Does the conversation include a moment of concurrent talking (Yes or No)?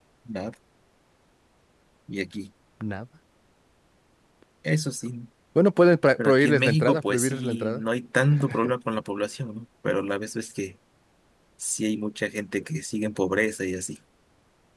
Yes